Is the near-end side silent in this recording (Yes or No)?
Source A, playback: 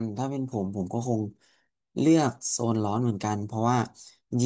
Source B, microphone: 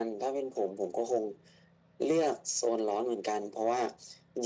Yes